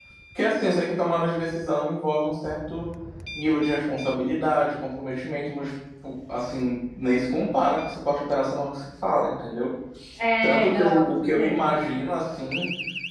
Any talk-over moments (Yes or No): Yes